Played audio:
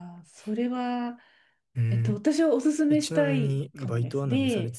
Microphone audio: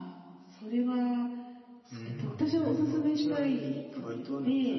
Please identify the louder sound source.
echo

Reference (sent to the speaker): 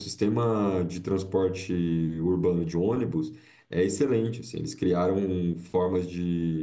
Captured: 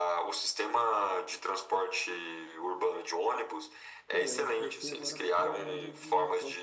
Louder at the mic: echo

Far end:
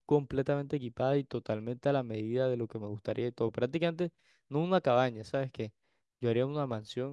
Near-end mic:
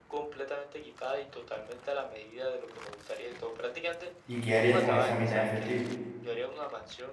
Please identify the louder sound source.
user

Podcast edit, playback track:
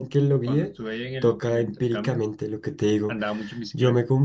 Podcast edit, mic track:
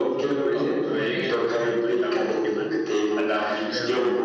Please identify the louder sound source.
echo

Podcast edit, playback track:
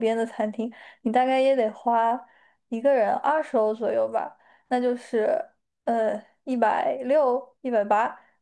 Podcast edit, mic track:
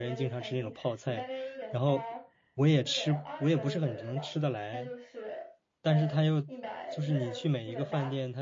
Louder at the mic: user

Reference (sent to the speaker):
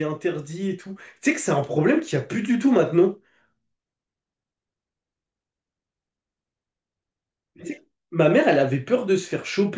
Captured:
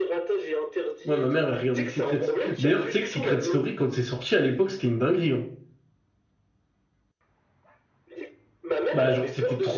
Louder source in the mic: user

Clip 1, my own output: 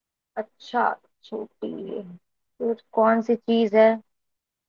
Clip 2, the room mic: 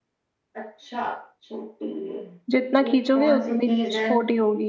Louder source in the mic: user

